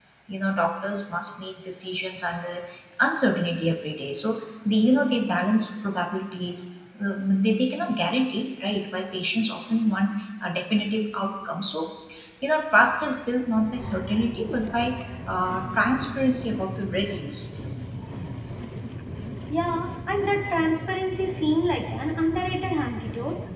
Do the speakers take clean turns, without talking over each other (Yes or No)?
Yes